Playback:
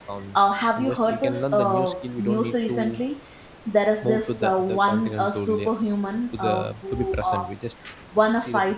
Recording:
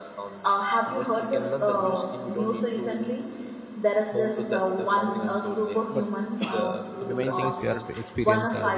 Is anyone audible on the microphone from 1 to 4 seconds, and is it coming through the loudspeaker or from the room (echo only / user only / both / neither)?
echo only